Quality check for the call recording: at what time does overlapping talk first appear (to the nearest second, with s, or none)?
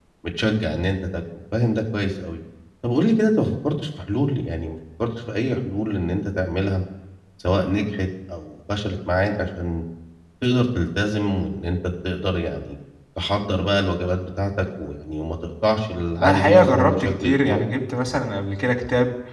16 s